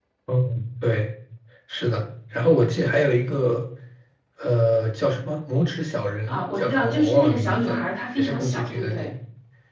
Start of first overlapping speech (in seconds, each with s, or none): 6.3 s